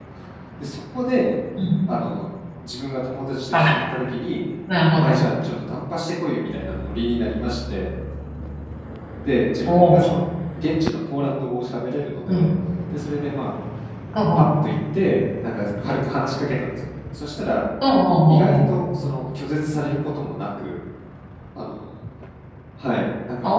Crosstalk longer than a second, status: none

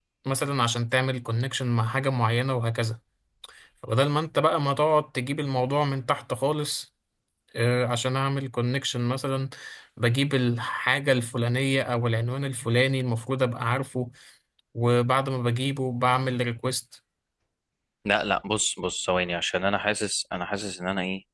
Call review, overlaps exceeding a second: none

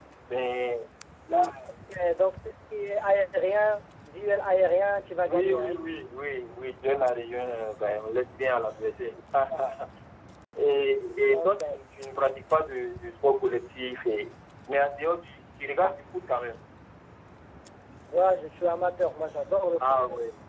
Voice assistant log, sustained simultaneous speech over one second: none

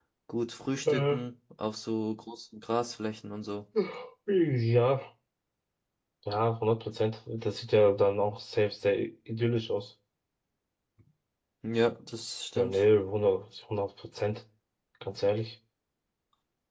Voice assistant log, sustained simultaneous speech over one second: none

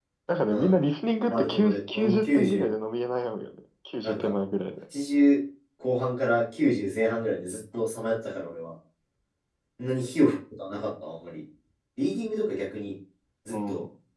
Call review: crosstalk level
present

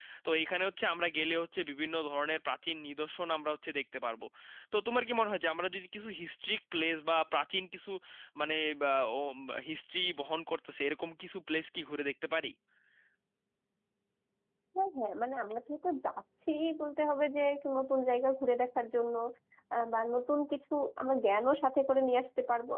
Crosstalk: none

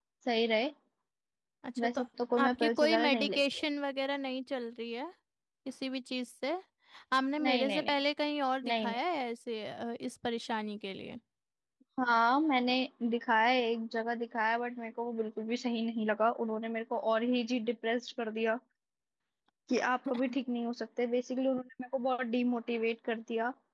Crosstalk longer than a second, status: present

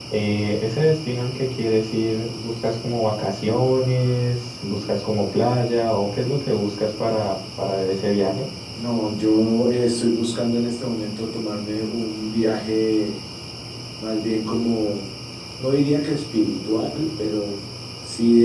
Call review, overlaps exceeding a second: none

